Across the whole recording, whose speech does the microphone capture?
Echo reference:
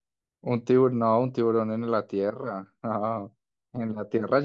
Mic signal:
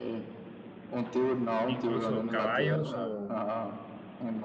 both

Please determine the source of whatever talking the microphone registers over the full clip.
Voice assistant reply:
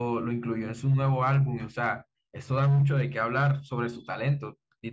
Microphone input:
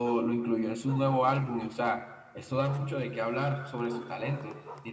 echo only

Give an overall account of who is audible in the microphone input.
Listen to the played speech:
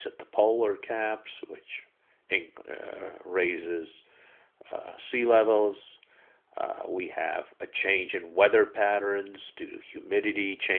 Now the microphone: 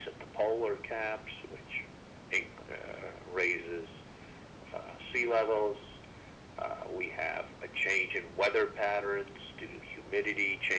echo only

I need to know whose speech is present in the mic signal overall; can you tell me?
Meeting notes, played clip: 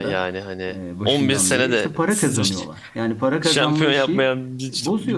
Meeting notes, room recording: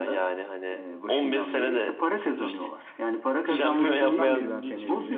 both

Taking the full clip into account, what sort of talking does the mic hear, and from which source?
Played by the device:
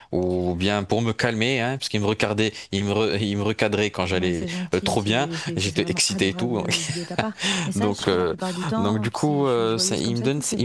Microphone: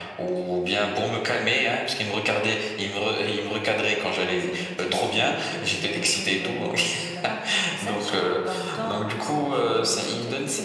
echo only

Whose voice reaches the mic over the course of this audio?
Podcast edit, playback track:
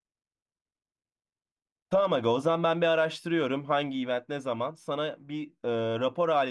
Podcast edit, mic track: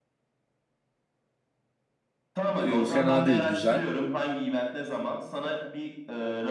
both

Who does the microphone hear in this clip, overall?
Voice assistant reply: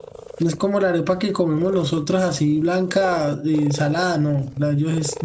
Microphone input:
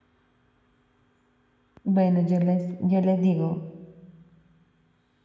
user only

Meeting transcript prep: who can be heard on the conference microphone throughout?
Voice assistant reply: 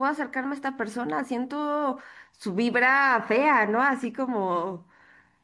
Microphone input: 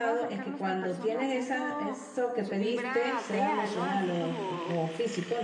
both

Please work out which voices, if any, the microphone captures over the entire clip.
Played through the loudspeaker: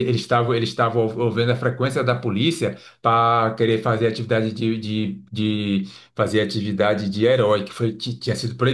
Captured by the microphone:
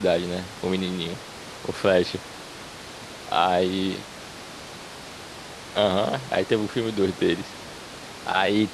user only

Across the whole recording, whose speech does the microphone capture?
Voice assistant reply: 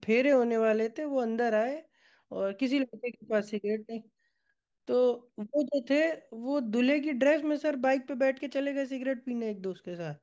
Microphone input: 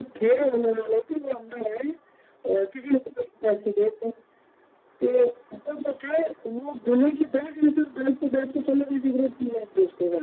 echo only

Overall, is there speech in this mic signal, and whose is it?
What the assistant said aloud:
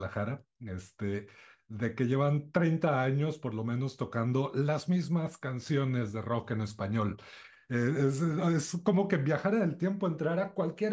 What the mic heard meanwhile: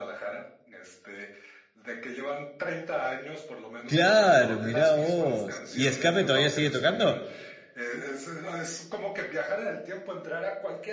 both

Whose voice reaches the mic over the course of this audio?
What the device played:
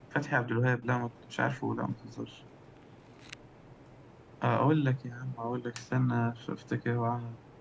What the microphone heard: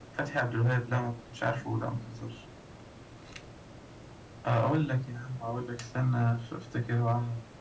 echo only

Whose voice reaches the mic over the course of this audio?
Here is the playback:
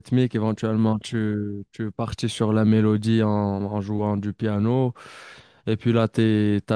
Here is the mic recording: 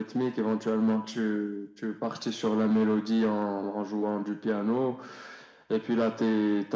echo only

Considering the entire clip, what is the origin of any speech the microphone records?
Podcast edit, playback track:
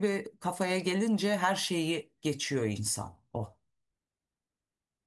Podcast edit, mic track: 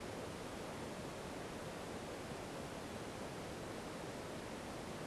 neither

